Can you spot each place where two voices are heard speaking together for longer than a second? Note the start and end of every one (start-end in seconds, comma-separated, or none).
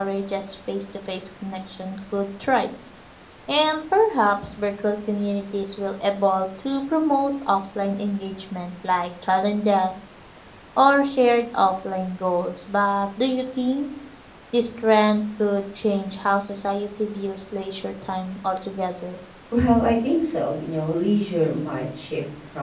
none